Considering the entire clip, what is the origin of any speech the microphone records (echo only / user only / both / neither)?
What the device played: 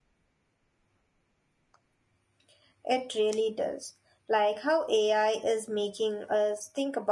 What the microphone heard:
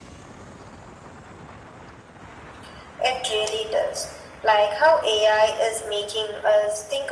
echo only